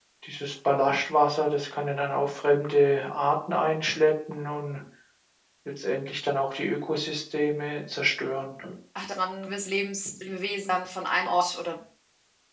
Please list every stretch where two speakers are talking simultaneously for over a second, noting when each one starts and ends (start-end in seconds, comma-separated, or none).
none